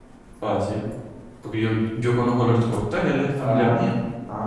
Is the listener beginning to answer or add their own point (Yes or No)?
Yes